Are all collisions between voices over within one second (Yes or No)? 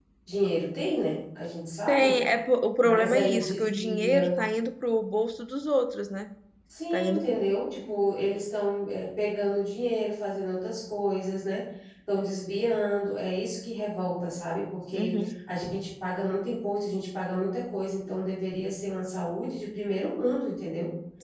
No